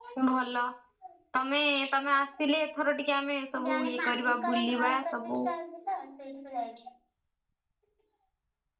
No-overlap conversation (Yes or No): No